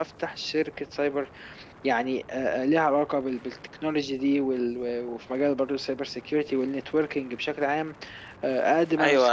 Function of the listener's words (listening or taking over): taking over